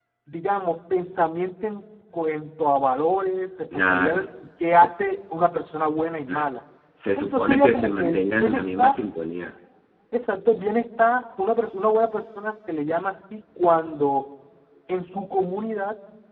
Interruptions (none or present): present